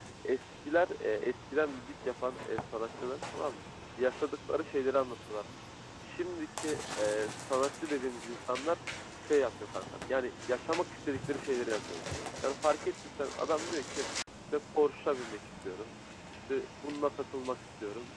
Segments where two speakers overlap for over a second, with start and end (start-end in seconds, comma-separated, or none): none